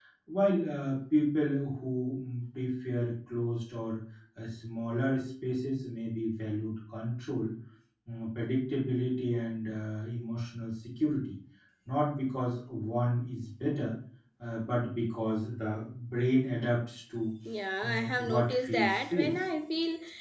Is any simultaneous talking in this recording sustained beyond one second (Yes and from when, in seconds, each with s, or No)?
Yes, from 17.8 s